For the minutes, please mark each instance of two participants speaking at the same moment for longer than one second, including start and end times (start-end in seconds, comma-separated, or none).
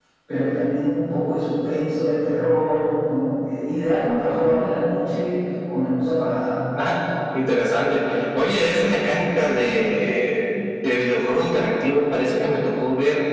none